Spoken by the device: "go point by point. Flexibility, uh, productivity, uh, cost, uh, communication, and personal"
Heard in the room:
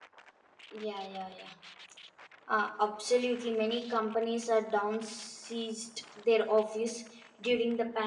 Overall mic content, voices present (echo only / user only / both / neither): user only